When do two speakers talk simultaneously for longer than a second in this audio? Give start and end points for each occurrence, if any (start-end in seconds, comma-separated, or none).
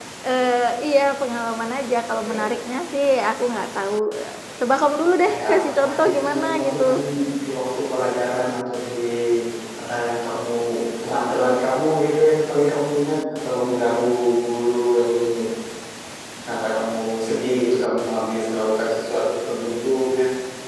5.2-6.8